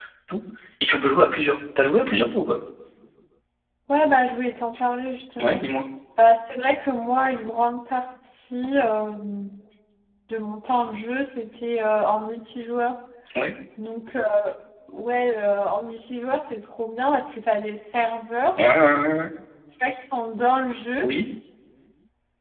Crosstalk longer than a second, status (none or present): none